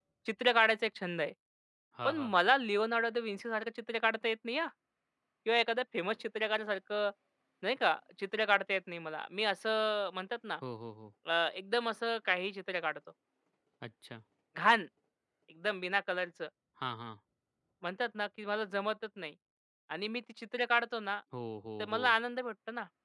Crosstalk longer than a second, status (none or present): none